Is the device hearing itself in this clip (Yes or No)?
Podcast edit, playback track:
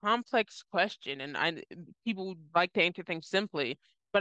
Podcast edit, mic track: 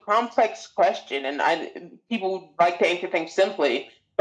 Yes